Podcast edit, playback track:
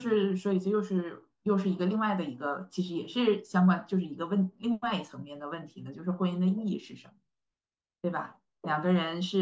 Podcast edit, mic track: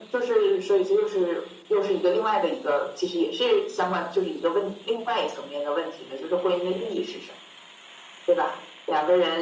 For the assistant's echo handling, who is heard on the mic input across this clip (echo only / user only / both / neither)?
echo only